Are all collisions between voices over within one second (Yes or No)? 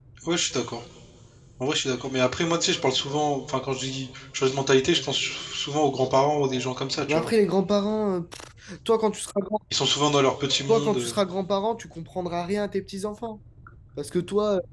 Yes